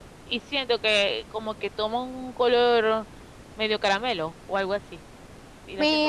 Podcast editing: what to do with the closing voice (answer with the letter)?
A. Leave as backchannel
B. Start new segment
B